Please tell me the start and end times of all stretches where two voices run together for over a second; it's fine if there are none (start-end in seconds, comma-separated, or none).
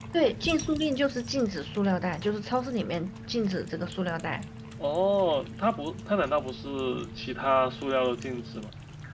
none